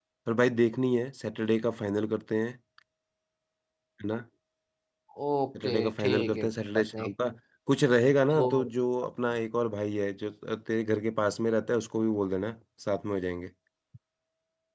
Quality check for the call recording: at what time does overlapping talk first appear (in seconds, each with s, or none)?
5.6 s